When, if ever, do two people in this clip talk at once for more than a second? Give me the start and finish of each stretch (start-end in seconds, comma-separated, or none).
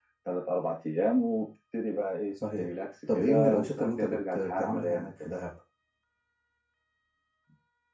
3.1-5.0